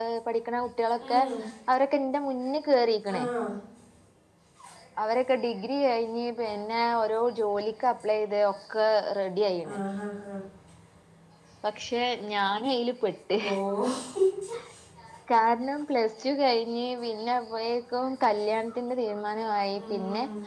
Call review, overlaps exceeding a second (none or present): none